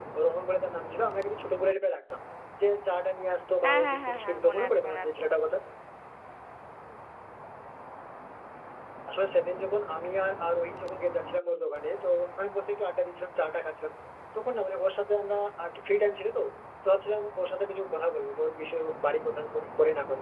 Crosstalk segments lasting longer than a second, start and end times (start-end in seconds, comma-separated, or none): 3.6-5.1